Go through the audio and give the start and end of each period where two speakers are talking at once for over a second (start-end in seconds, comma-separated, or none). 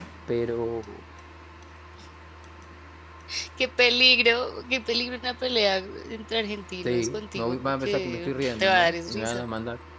6.8-9.4